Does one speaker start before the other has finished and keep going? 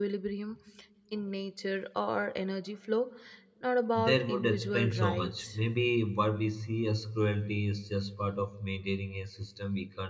Yes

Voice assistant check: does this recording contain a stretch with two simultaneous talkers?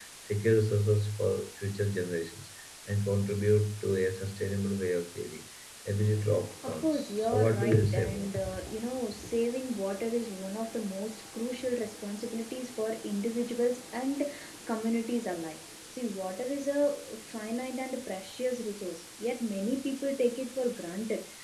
Yes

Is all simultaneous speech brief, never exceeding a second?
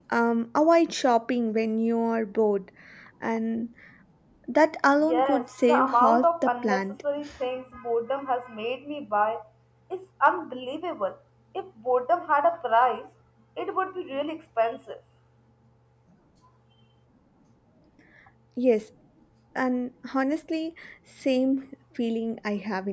No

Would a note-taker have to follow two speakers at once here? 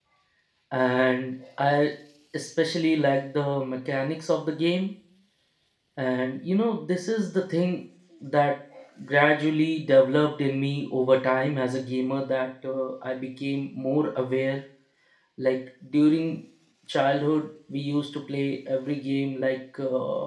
No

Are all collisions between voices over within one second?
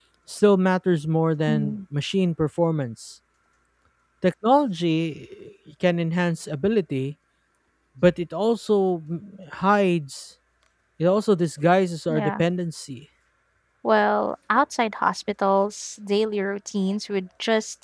Yes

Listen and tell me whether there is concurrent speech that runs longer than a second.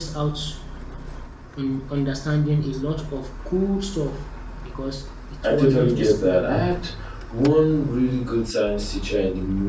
Yes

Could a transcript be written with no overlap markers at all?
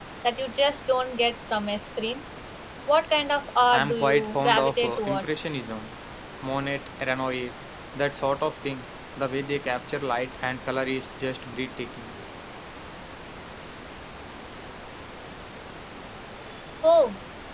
No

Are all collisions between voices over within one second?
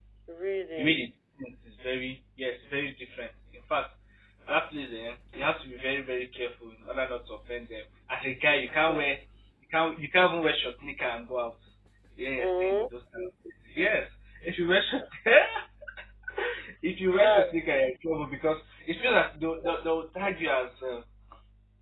Yes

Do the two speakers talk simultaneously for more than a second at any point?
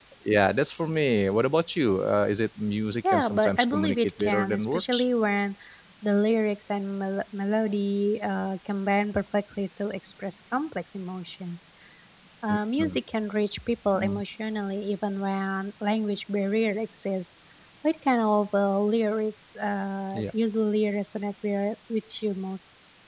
Yes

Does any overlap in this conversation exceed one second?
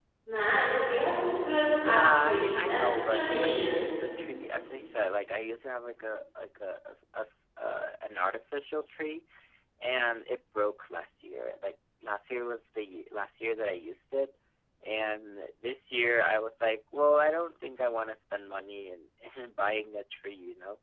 Yes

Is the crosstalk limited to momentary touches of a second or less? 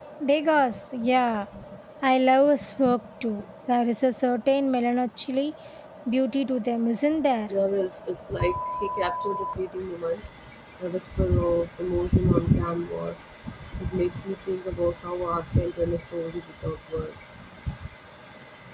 Yes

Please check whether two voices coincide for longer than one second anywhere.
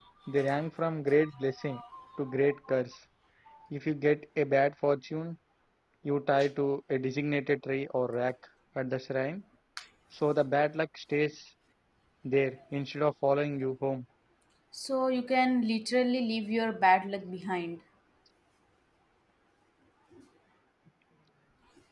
No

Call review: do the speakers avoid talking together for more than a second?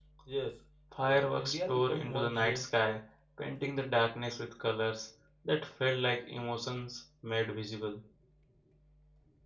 No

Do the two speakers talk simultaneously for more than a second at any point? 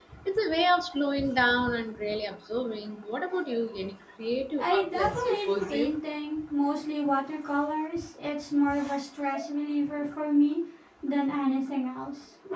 Yes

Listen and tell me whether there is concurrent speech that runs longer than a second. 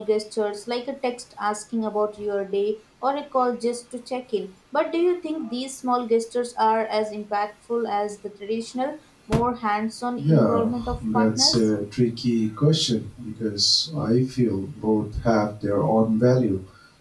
Yes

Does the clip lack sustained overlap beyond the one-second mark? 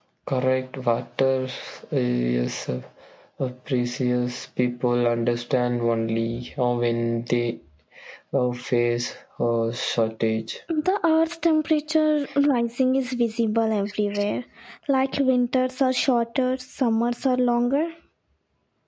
Yes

